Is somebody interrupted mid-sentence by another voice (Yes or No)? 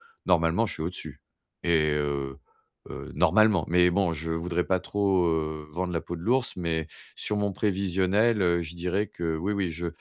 No